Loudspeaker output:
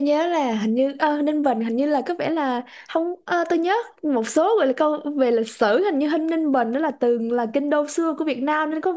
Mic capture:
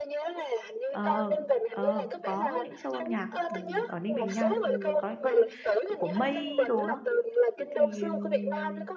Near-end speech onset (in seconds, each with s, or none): 0.9 s